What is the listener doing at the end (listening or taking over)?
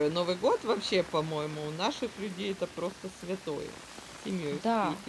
taking over